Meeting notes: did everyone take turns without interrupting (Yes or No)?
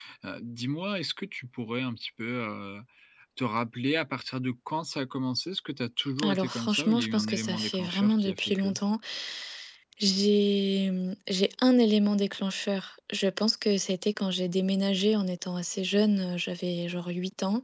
No